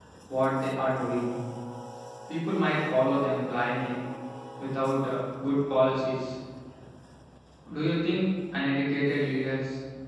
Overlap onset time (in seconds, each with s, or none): none